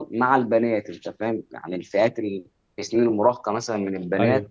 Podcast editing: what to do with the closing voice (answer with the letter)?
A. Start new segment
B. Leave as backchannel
B